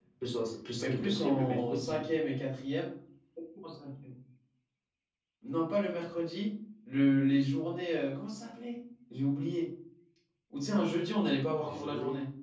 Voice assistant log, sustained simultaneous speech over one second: present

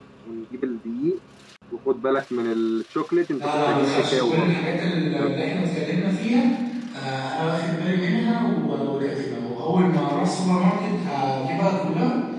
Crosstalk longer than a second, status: present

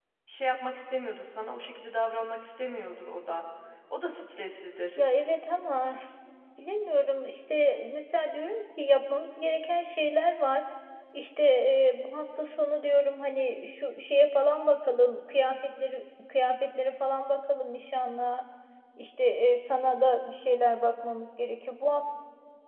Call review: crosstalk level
none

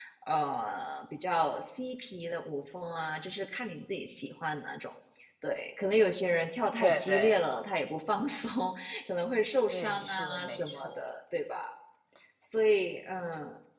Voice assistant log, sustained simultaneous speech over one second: present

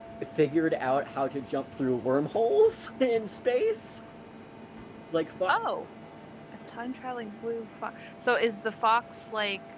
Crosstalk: none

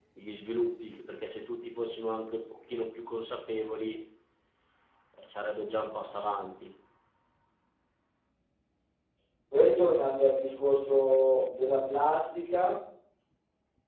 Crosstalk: none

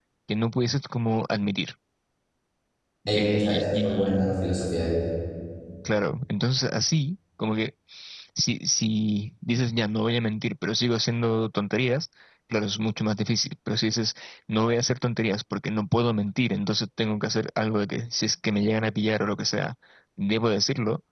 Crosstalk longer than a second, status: present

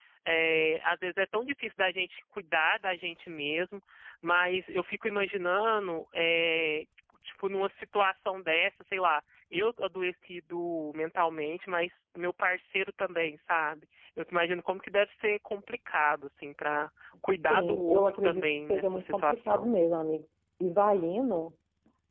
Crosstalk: present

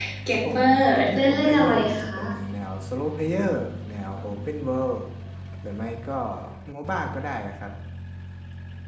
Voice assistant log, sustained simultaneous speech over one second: present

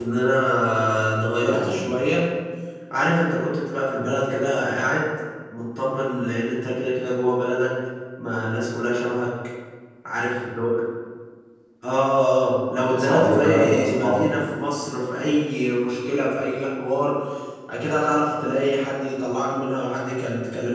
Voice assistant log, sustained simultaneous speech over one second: present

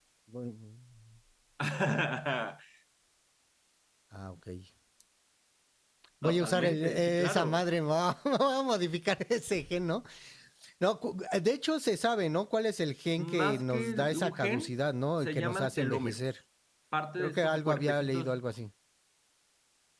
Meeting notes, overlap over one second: present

